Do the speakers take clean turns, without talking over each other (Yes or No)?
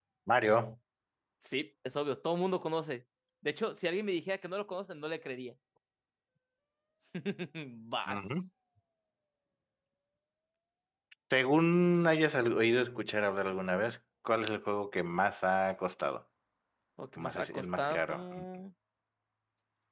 No